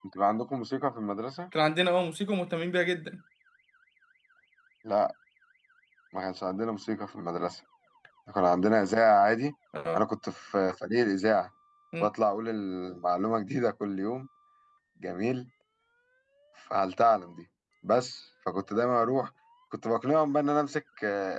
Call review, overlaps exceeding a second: none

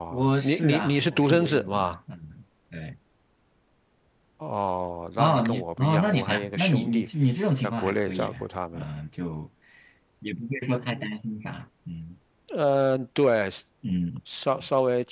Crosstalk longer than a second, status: present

